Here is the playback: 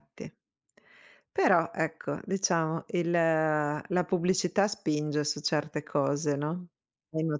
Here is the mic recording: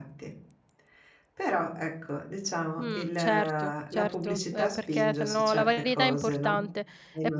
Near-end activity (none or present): present